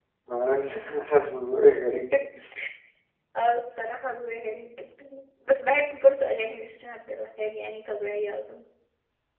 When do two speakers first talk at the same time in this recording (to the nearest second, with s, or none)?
none